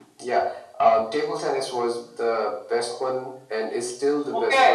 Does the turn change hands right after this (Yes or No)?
Yes